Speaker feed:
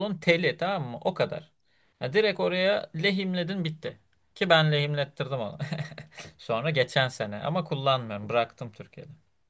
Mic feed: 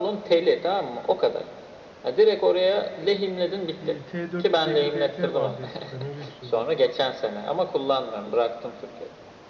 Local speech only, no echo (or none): e, T450 BT vardı eskiden öyle bir şey vardı.